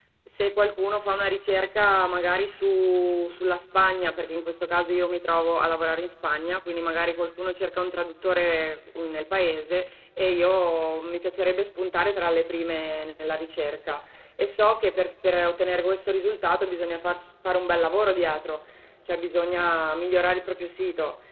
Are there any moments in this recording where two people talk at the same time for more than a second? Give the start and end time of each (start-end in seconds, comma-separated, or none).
none